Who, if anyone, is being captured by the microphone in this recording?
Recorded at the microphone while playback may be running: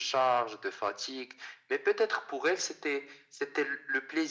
echo only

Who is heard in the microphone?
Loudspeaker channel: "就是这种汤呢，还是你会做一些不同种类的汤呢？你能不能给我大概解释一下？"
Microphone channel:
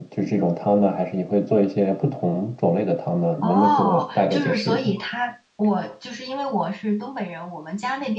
both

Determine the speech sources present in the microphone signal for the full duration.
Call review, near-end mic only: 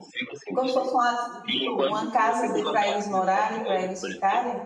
both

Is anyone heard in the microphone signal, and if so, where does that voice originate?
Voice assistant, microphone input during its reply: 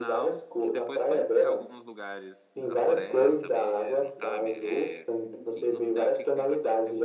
both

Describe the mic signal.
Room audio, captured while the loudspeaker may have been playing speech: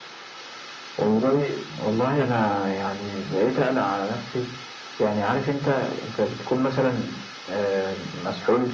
echo only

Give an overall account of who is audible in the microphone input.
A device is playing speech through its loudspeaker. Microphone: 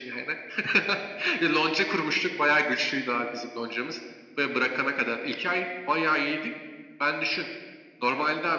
echo only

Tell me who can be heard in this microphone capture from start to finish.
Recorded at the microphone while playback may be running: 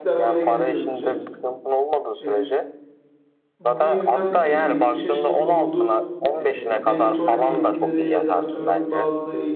both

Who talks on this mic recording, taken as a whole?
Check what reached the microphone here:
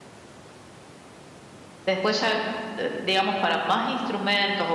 user only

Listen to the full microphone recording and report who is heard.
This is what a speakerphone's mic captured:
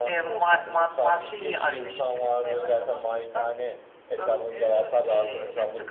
both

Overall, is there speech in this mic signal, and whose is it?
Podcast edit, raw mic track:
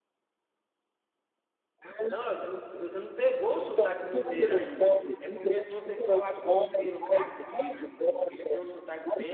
both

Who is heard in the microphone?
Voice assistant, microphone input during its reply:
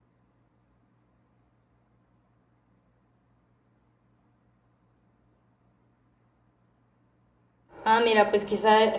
user only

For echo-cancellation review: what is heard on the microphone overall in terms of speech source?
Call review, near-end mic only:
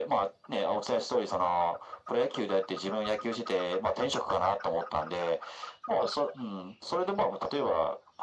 echo only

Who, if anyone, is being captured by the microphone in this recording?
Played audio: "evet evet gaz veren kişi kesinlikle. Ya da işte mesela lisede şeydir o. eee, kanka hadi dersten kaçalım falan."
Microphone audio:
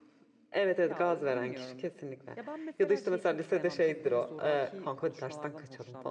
both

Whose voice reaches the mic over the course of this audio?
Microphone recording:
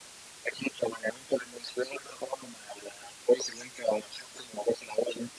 echo only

